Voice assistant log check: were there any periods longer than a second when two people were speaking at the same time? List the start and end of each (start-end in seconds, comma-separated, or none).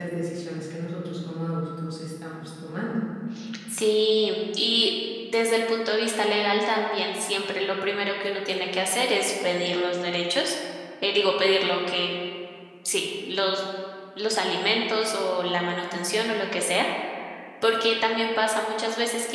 none